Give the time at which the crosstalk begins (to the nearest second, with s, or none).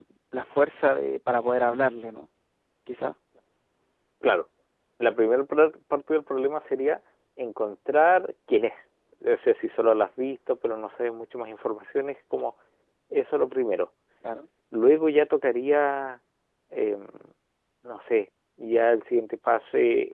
none